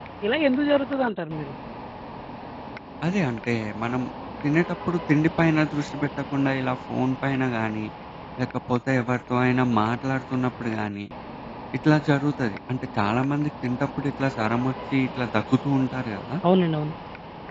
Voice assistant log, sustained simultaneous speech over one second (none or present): none